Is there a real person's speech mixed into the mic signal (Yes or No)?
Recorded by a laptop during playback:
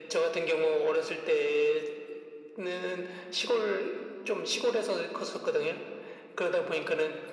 No